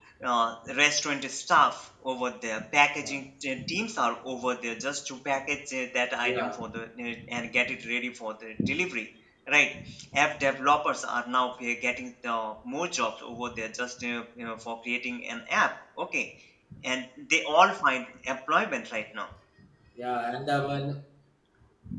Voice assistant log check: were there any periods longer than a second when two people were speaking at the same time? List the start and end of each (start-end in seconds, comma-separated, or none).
none